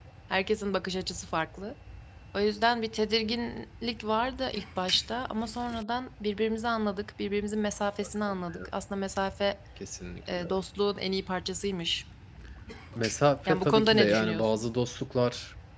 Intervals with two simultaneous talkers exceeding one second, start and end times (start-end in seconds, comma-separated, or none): 13.5-14.7